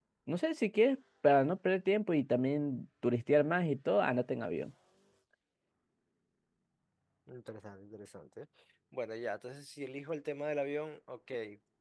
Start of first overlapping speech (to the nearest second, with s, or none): none